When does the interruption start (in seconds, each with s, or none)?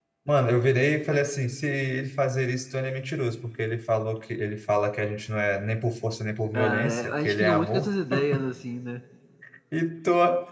6.5 s